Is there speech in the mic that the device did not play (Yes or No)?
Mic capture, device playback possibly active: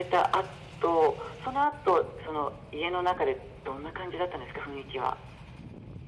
No